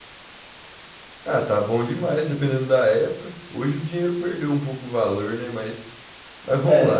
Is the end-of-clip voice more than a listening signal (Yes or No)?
Yes